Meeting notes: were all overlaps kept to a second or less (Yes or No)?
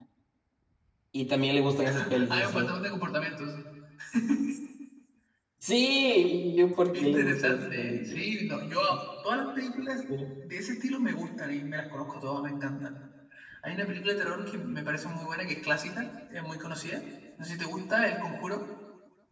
No